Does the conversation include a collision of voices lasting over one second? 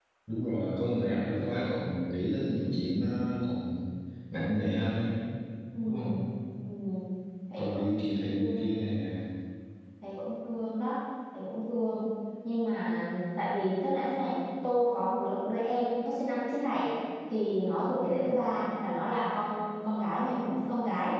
Yes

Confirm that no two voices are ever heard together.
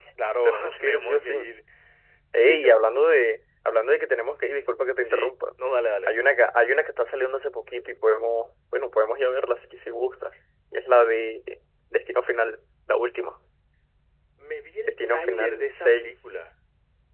No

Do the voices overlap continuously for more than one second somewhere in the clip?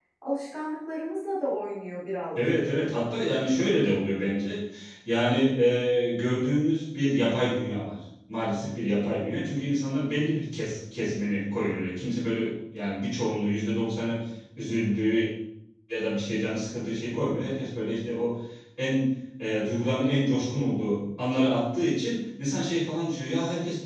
No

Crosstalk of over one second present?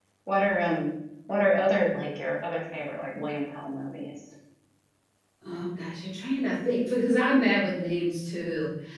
No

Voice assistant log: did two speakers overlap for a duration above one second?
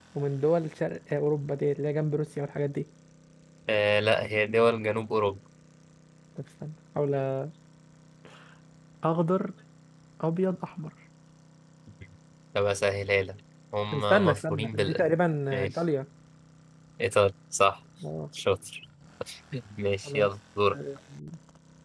Yes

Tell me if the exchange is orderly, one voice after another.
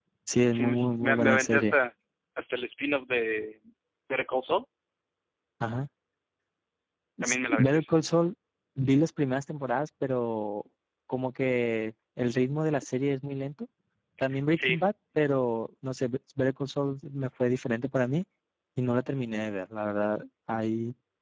No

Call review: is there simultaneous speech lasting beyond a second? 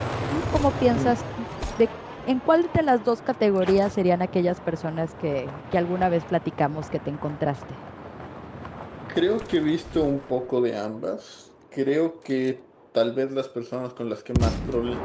No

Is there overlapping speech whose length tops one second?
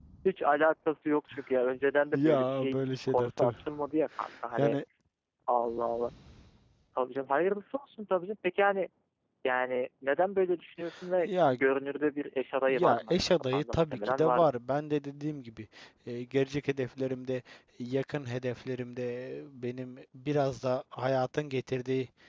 Yes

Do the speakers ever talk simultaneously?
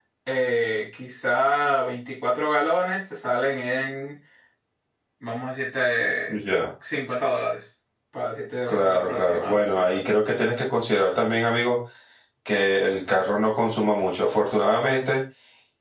Yes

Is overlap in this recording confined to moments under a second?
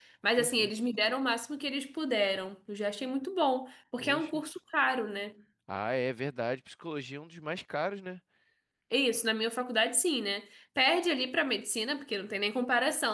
Yes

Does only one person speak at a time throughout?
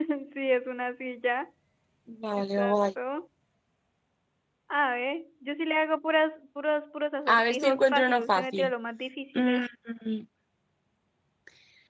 No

